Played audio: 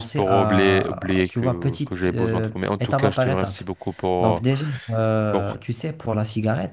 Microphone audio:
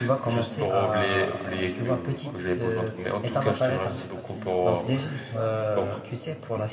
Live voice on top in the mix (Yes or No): No